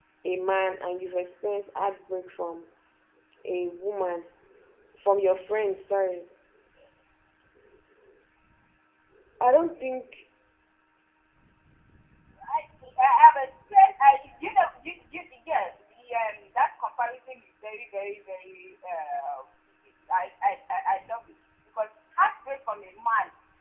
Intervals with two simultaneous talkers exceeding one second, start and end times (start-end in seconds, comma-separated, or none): none